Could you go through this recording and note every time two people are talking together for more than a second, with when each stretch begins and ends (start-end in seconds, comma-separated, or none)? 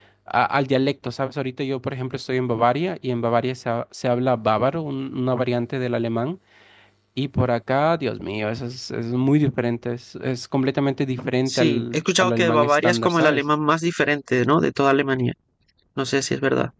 11.5-13.4